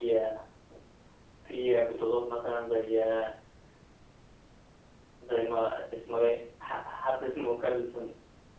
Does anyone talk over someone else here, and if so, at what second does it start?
none

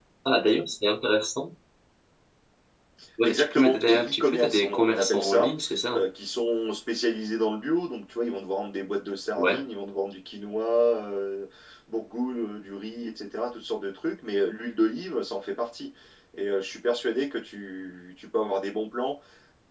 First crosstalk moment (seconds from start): 3 s

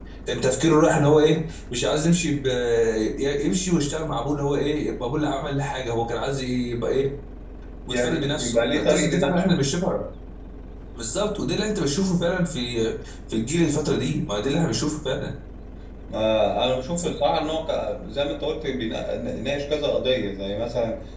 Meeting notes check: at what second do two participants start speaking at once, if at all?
8 s

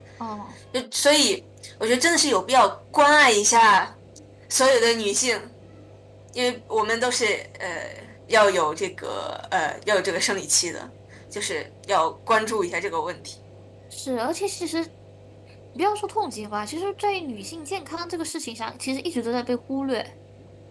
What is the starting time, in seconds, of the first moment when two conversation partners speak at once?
none

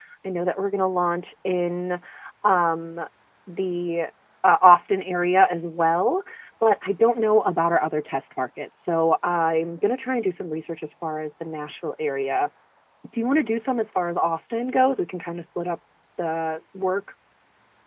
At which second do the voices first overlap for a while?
none

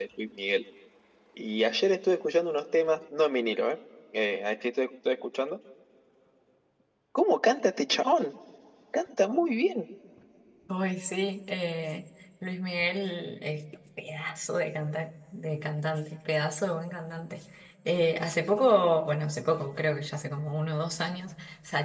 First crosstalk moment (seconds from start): none

